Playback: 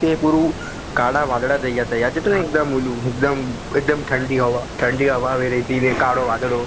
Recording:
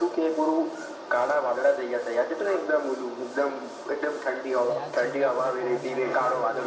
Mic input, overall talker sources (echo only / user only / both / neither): both